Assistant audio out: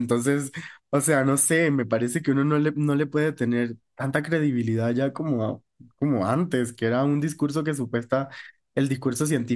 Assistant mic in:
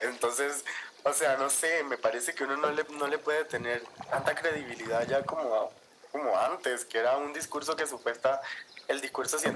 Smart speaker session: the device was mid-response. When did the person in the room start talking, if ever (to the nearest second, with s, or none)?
none